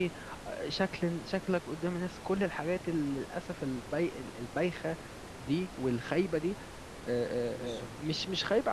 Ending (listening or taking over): listening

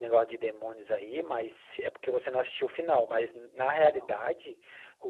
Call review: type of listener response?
listening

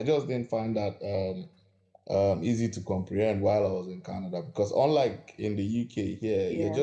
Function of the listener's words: listening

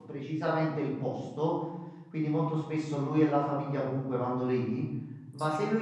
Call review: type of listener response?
listening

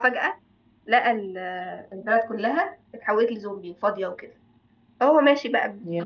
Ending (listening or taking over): listening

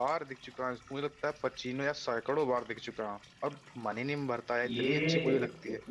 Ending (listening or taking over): taking over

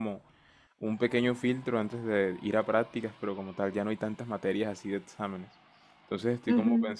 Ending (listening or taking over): listening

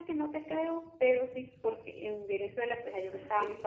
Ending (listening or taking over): listening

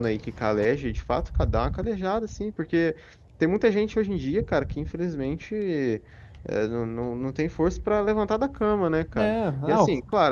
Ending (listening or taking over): listening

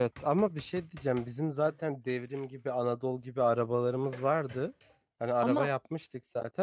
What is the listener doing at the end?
listening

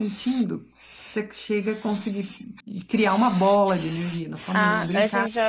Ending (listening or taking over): taking over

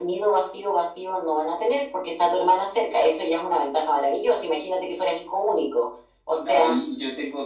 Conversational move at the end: taking over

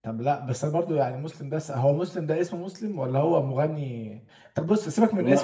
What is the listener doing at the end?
listening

